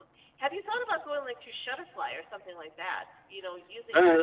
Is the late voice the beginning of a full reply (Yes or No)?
Yes